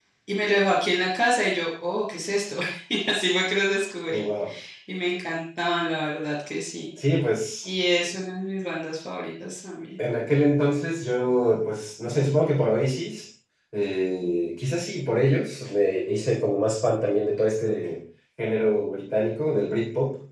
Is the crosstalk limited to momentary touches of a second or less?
Yes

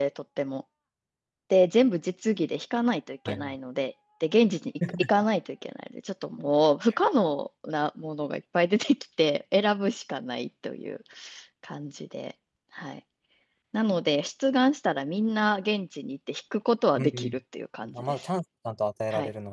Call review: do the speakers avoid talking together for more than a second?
Yes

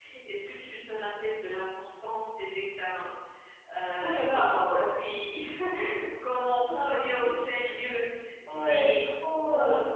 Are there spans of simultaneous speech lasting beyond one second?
Yes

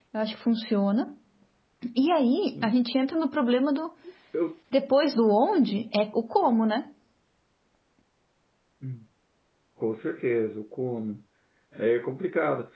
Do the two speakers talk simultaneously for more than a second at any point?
No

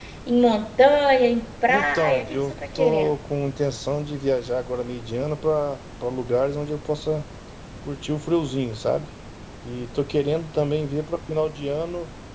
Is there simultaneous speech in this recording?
Yes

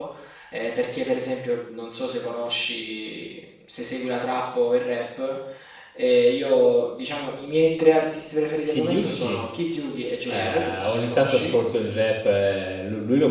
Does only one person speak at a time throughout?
No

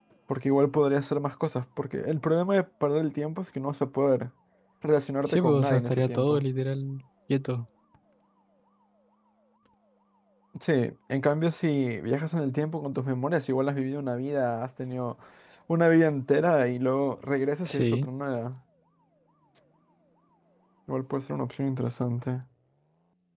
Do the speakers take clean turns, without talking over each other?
No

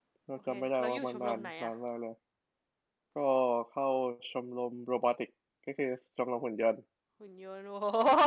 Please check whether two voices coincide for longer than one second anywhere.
Yes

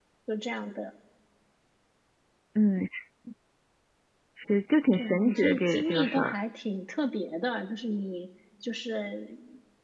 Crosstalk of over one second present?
Yes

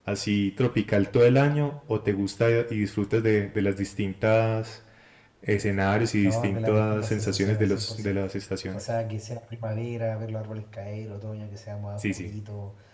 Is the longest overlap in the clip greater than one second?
Yes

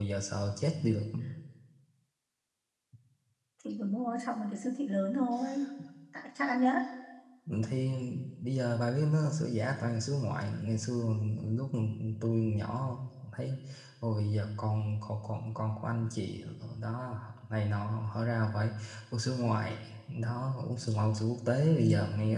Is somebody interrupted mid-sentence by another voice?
No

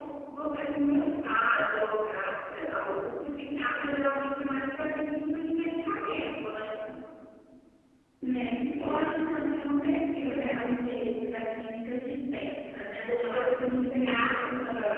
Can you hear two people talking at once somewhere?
Yes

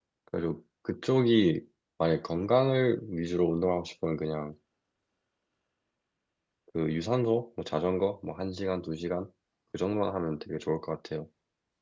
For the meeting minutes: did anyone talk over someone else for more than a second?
No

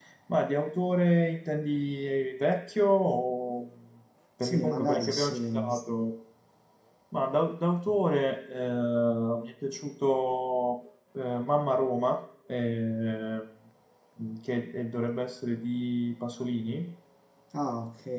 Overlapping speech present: Yes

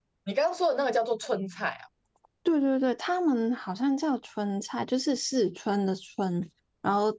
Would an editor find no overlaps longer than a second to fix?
Yes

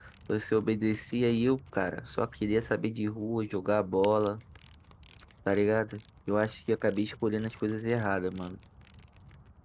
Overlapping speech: No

